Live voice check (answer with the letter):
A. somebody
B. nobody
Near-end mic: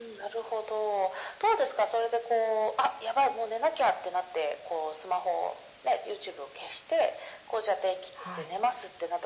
A